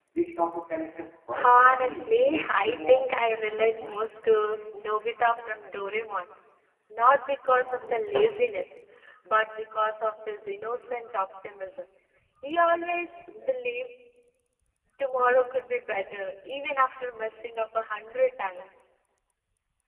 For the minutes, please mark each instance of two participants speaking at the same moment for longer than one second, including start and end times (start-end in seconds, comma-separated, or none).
1.4-3.1